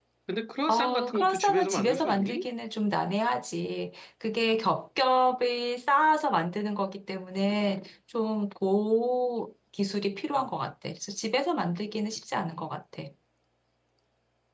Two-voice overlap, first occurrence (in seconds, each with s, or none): 0.7 s